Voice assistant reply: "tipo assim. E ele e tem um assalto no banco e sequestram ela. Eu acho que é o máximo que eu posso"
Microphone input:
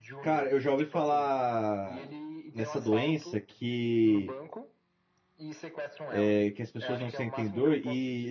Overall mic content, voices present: both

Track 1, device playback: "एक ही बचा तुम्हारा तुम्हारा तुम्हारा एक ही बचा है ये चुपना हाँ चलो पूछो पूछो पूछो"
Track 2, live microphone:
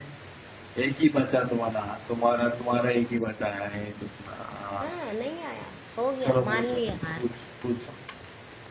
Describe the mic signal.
both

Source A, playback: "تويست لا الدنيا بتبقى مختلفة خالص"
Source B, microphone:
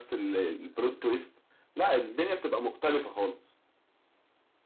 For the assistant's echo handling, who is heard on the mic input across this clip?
echo only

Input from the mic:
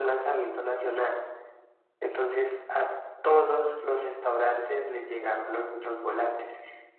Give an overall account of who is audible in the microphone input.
echo only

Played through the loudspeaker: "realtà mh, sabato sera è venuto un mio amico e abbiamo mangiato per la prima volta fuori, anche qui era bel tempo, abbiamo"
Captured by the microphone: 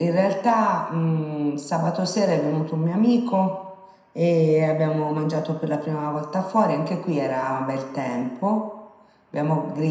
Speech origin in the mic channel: echo only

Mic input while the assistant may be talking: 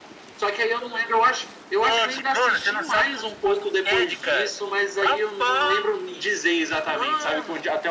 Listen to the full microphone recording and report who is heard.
echo only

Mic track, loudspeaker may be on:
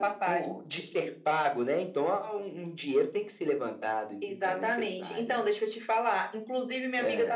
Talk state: echo only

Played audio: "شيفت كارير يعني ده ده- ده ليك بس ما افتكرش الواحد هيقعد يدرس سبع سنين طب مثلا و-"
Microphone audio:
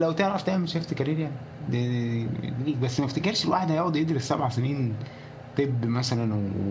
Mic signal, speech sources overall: echo only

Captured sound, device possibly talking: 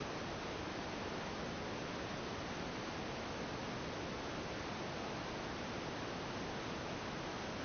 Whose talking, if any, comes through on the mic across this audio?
neither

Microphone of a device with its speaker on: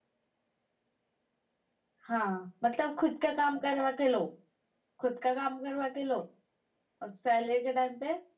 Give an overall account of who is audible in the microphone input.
echo only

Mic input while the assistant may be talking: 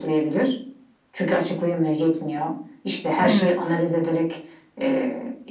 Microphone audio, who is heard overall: both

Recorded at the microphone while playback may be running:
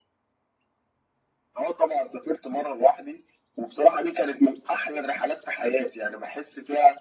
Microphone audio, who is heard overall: echo only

